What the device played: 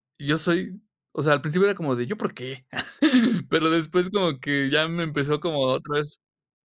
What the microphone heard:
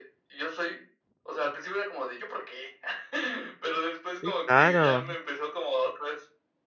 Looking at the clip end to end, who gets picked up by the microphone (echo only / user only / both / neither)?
both